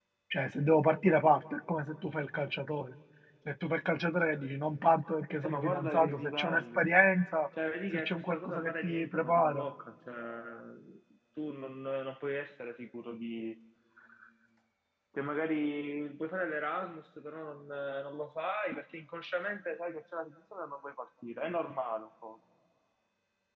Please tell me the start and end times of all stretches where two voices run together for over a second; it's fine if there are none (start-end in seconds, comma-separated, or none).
5.4-6.9, 7.9-9.7